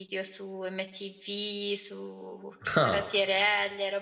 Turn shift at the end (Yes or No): No